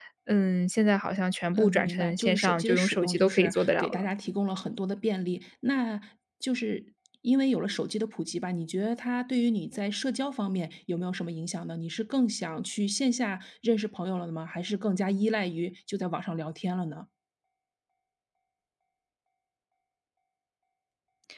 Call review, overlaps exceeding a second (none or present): present